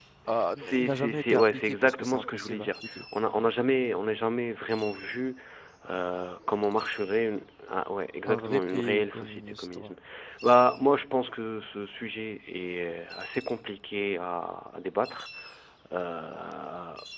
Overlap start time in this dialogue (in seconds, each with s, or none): 0.6 s